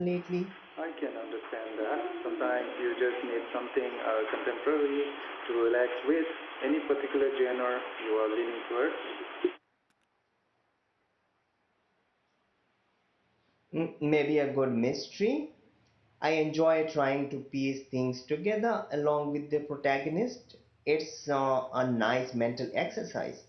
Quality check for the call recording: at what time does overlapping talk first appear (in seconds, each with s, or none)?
none